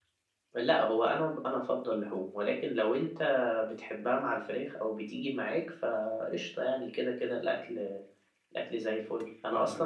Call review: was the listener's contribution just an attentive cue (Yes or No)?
Yes